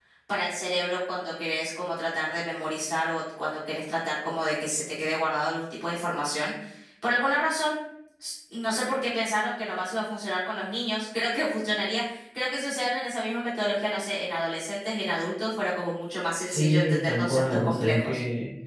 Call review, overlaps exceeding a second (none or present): present